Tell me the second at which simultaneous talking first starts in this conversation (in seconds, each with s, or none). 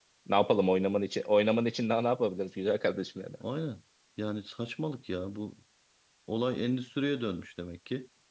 none